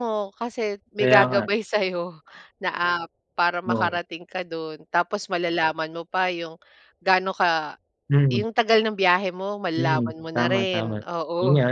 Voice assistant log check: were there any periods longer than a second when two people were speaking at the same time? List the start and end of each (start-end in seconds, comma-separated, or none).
9.8-11.0